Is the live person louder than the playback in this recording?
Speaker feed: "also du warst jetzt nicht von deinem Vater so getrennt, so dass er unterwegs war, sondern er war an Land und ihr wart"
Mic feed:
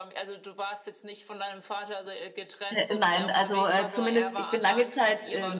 Yes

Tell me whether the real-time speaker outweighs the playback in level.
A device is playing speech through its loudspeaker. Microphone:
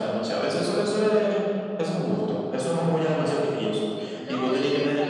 No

